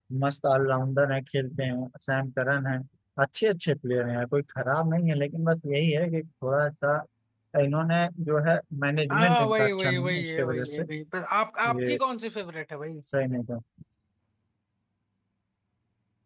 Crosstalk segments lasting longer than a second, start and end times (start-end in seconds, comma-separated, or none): 9.1-10.8